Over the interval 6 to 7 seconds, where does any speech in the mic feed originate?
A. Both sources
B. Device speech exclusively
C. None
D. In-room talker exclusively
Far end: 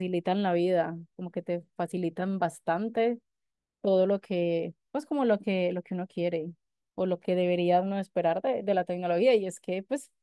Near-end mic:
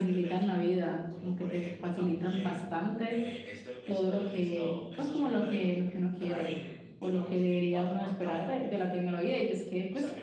A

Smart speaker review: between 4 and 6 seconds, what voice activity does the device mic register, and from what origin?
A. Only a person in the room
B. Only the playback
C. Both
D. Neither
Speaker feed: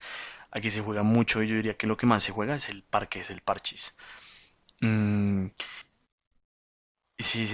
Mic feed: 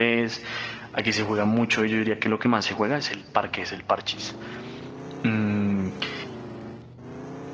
B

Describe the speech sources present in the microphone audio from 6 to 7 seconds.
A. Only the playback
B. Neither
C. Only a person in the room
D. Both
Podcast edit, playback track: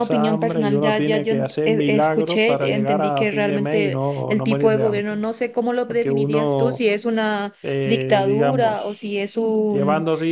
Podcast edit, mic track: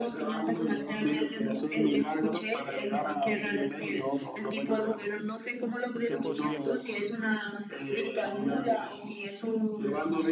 D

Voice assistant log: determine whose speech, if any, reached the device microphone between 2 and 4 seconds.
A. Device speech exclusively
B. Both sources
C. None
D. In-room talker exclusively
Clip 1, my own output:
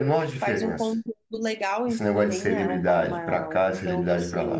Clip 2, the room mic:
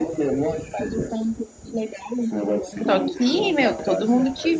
B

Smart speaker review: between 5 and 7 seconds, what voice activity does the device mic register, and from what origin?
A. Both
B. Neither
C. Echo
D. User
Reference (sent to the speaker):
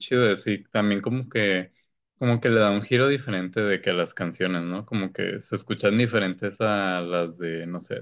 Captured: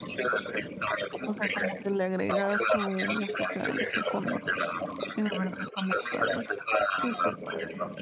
A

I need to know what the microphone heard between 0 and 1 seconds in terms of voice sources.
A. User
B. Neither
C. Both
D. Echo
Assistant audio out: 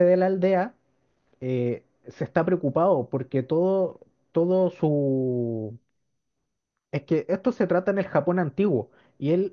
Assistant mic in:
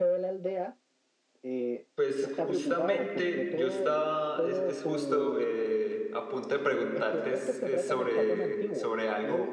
D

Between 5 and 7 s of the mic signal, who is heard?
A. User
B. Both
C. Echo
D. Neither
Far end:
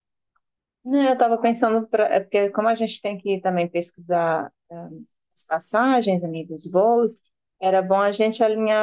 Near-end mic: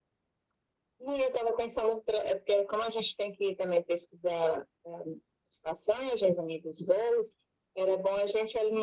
C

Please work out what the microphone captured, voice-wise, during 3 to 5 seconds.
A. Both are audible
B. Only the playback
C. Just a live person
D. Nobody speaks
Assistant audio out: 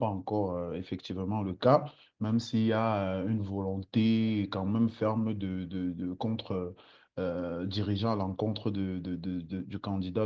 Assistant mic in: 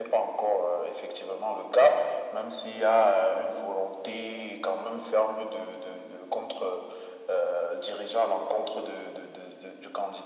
B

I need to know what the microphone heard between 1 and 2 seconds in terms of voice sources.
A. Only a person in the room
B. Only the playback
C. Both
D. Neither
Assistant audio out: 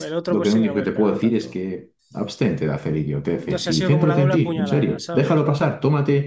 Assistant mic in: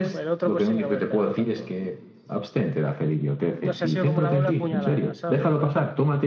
B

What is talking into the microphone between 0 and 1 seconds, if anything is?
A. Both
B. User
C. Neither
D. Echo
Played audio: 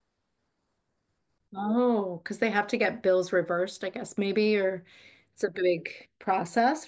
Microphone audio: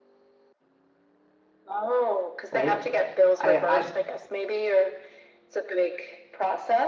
C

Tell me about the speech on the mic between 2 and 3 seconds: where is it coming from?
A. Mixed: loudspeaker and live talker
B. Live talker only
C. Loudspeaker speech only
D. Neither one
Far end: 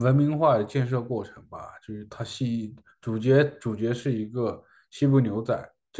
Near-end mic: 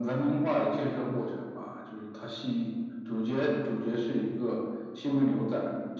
C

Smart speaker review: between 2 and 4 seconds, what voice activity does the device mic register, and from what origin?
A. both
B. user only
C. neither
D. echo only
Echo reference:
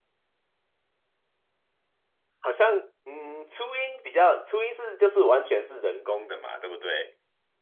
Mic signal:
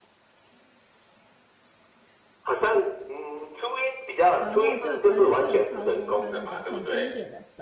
D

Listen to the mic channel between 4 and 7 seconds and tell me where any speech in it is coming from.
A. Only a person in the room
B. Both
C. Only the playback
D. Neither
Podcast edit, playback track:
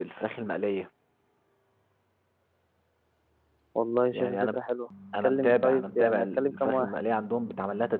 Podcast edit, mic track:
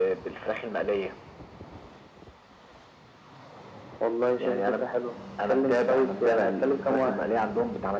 C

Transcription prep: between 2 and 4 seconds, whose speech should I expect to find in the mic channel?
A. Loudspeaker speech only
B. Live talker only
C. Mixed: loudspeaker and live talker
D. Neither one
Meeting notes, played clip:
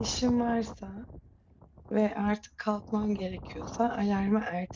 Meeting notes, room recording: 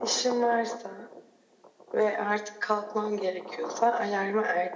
A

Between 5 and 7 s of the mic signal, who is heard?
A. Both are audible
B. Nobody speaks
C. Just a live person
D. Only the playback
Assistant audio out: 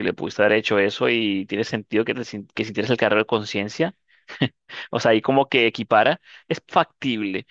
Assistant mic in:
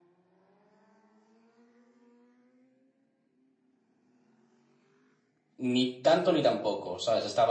C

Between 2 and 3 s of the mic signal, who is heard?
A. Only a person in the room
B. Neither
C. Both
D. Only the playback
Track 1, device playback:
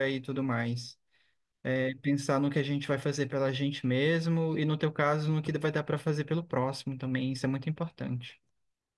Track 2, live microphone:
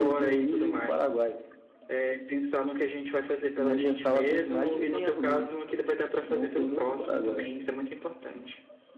D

